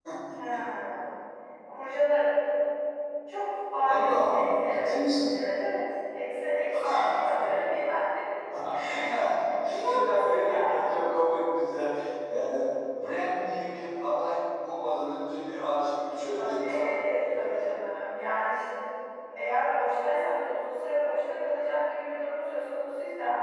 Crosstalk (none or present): present